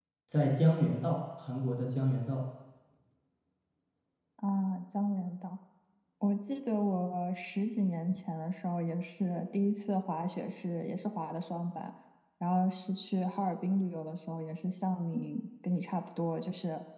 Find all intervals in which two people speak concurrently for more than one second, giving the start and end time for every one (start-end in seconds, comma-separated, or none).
none